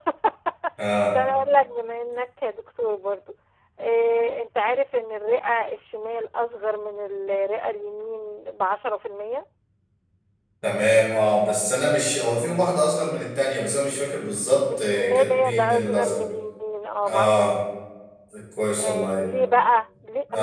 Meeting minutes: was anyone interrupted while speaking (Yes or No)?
Yes